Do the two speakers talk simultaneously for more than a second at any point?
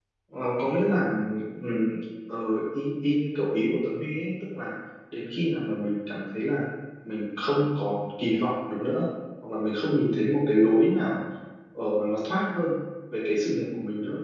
No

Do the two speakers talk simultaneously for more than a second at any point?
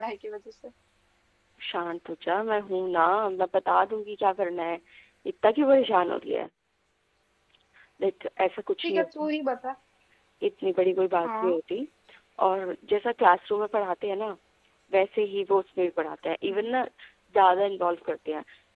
No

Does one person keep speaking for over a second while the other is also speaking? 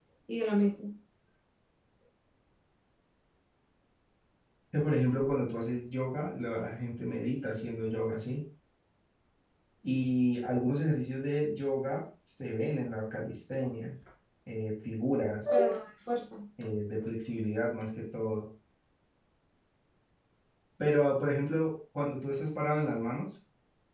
No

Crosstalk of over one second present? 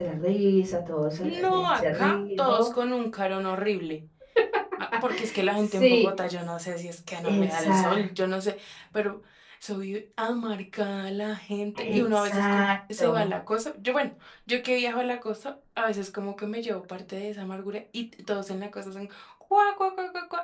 Yes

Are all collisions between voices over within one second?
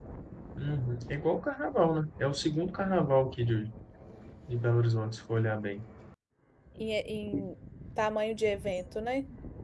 Yes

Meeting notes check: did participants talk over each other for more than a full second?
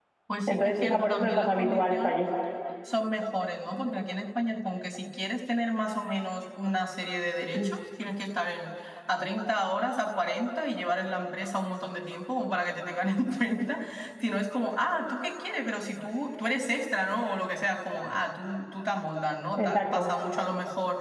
Yes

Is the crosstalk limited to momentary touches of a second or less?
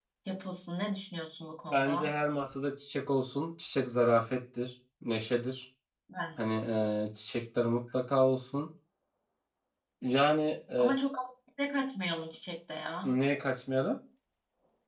Yes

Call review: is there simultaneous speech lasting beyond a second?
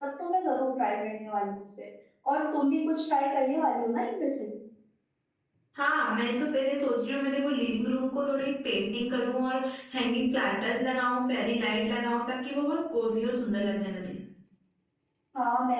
No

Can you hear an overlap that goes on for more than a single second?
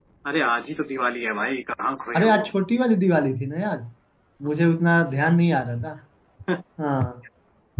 No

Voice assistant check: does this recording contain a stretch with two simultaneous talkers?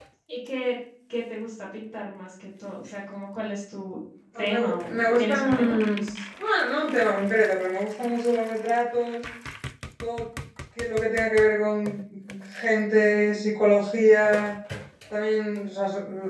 Yes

